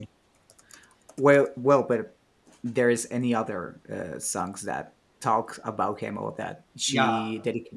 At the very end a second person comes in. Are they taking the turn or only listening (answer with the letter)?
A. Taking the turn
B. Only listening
A